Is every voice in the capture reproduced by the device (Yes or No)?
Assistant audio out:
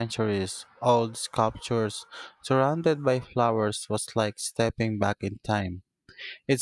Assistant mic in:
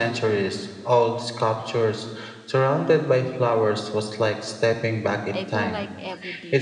No